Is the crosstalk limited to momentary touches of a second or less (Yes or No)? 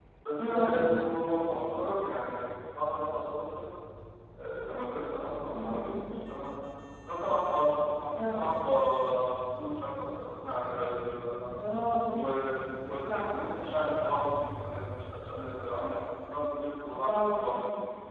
Yes